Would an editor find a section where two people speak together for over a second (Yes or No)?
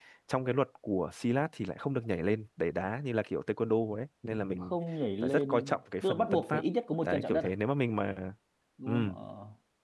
Yes